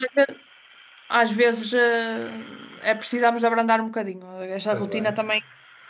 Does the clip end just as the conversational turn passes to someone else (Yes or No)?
No